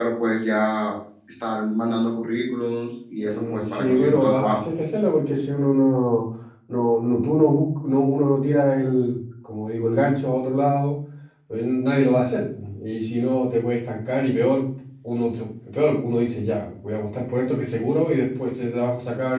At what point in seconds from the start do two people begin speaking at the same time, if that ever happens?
3.2 s

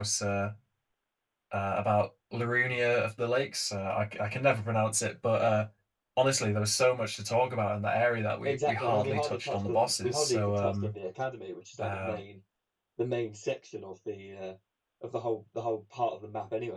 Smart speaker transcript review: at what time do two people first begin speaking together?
8.4 s

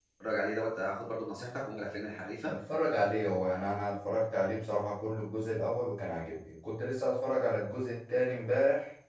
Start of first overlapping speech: none

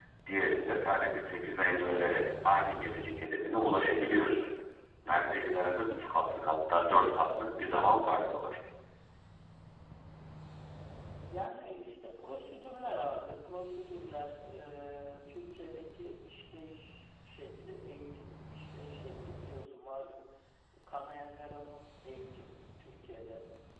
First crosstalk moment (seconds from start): none

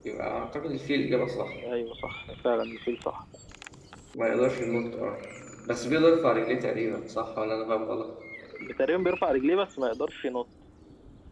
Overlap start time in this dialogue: none

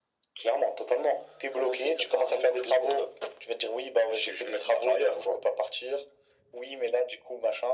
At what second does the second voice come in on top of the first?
1.6 s

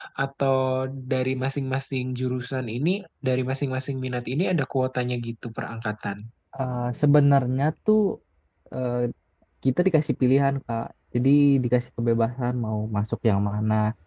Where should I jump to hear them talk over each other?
none

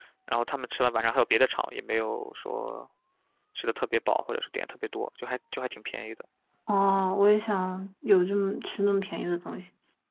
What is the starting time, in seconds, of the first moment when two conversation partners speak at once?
none

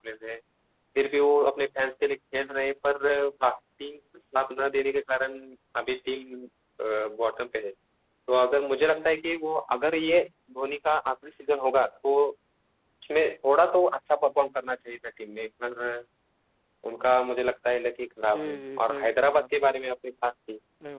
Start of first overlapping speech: 18.3 s

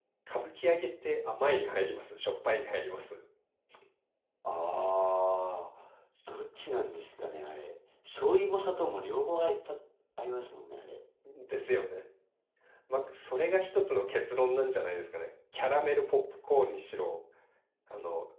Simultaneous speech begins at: none

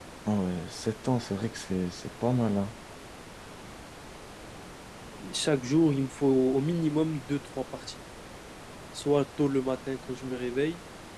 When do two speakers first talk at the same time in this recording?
none

